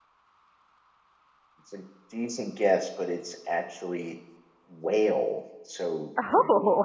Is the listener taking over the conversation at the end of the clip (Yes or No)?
No